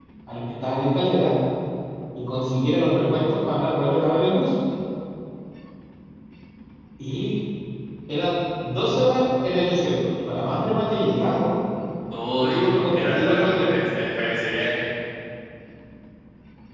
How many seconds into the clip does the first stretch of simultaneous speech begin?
12.4 s

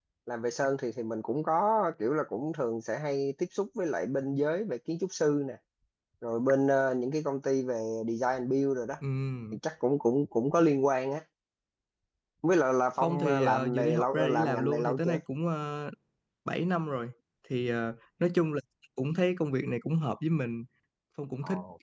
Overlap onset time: 13.0 s

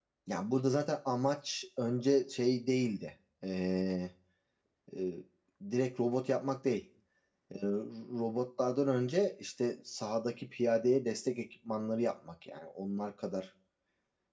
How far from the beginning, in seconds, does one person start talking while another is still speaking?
none

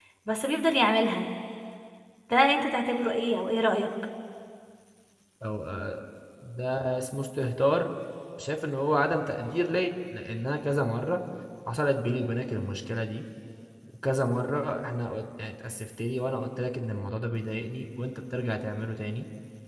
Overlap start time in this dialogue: none

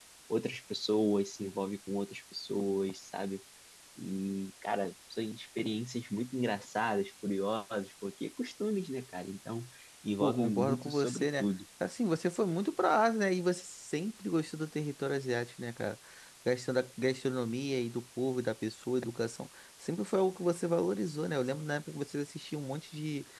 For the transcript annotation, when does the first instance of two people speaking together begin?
10.2 s

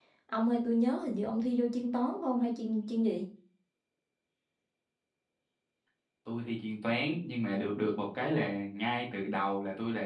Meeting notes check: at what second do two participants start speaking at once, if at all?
none

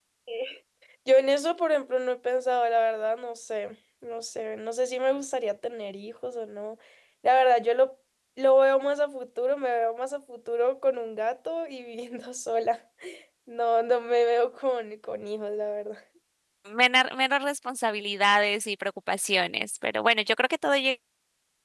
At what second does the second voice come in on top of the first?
none

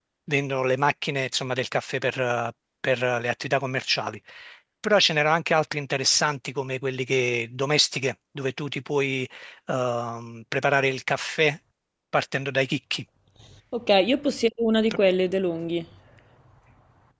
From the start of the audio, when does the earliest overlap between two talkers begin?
none

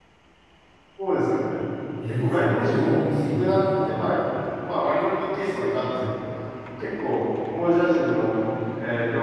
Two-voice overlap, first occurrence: 2.1 s

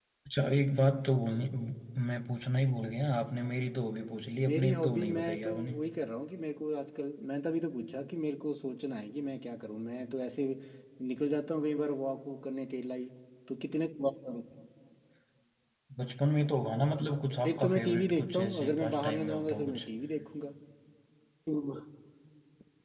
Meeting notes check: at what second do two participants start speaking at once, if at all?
4.4 s

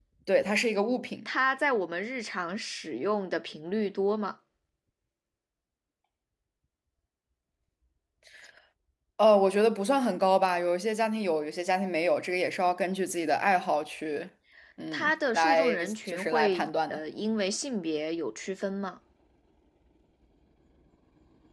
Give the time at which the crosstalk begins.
14.9 s

